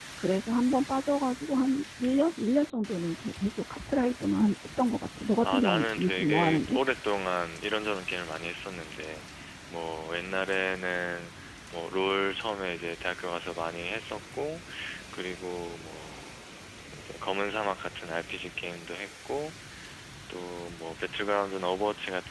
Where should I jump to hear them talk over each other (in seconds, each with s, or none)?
5.4 s